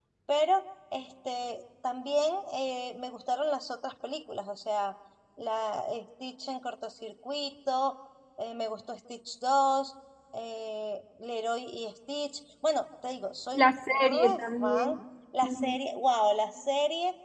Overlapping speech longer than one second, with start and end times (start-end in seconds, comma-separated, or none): 13.6-14.9